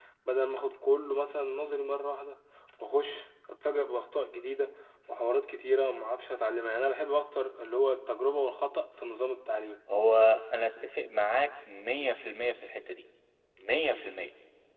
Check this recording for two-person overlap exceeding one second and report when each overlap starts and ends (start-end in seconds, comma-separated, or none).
none